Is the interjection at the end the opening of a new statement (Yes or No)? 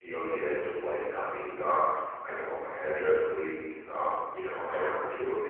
No